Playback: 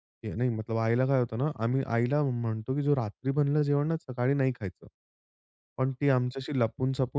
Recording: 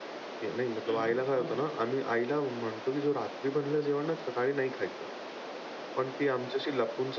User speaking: Yes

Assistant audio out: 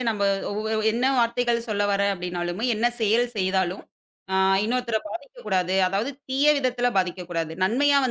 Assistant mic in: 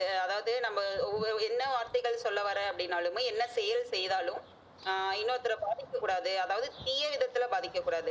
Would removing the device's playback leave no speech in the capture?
Yes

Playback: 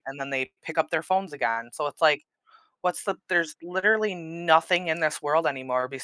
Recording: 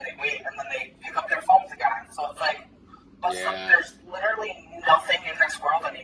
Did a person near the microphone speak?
Yes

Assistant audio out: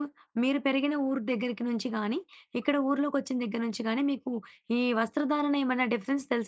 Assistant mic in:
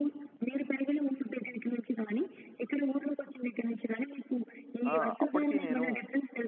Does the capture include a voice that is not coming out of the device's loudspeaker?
Yes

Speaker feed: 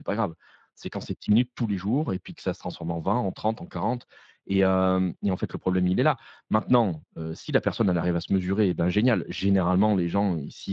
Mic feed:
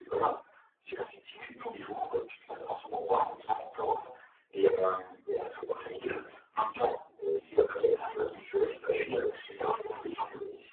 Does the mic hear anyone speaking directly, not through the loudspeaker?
No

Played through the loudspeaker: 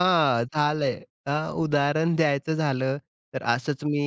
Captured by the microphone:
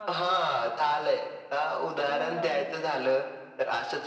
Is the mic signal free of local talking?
No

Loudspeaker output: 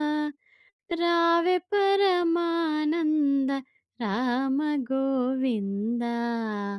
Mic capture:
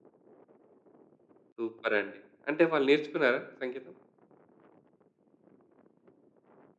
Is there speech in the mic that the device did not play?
Yes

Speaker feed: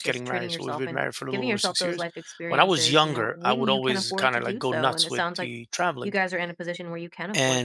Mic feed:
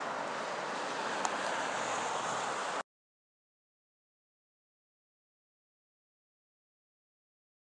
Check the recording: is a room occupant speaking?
No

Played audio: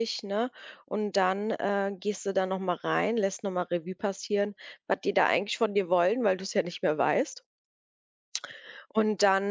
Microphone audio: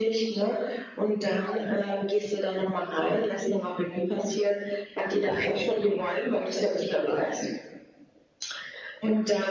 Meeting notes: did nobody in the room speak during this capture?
Yes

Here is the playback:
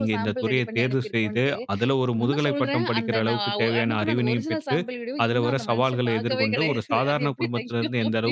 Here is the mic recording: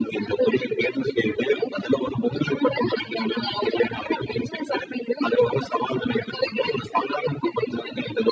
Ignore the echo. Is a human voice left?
No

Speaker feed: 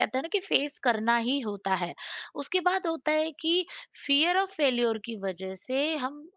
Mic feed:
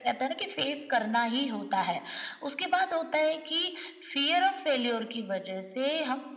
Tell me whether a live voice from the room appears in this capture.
No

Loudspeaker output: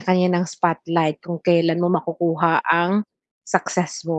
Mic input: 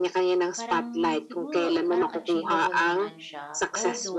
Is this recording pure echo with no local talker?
No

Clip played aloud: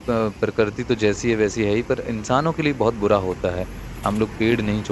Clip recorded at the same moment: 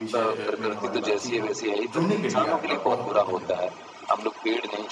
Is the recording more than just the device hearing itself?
Yes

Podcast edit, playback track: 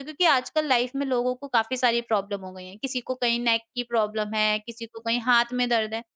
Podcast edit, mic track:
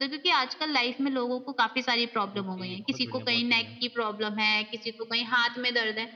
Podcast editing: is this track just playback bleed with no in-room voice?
No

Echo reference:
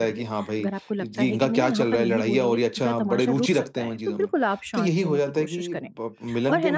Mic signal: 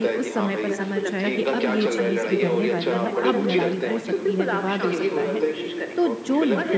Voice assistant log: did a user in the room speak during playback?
Yes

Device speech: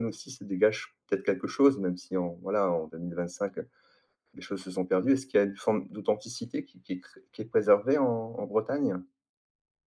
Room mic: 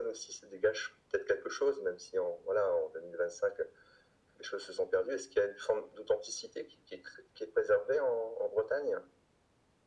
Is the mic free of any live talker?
Yes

